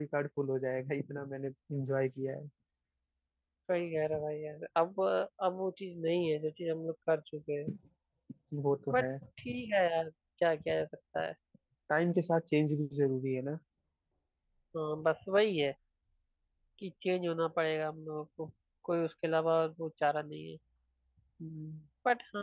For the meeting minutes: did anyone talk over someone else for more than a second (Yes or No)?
No